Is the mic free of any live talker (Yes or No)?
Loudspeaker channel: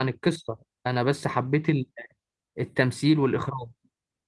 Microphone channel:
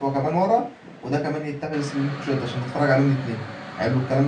No